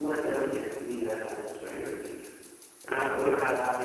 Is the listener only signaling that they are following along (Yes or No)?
Yes